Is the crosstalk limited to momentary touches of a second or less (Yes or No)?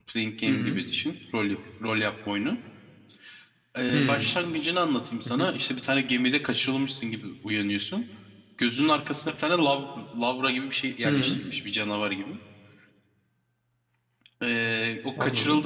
Yes